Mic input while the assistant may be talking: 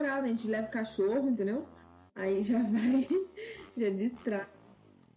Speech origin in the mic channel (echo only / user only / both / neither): echo only